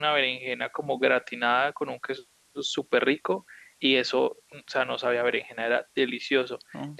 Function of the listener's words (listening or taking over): listening